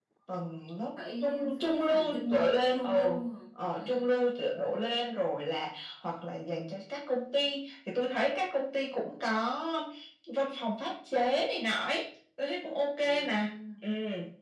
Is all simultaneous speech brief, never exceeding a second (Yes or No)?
No